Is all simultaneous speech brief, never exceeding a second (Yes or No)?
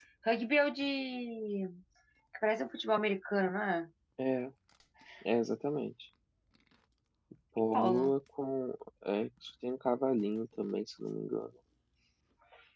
Yes